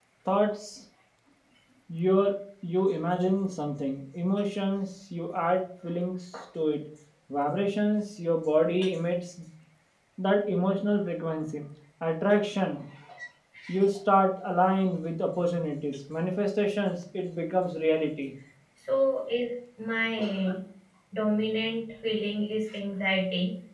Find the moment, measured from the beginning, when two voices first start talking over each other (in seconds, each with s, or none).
none